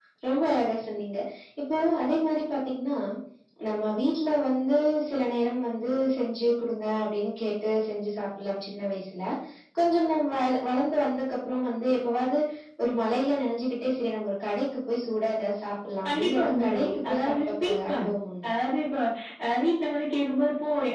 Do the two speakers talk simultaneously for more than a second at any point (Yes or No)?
Yes